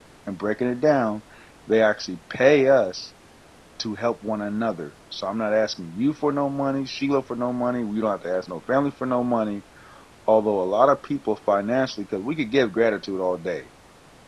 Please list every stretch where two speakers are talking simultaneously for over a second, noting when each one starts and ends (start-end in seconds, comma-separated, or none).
none